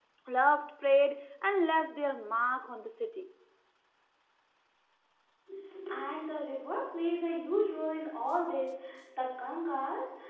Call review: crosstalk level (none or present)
none